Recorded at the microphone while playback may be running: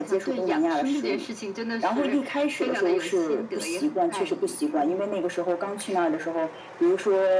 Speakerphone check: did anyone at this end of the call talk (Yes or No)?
No